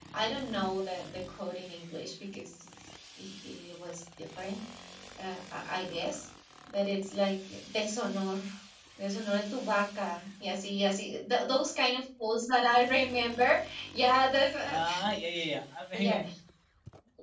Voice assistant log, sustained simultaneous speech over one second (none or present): none